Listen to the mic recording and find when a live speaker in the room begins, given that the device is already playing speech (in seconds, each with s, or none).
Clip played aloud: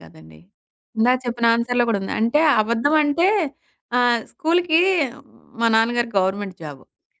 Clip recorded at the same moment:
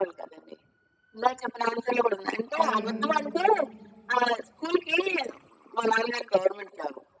2.6 s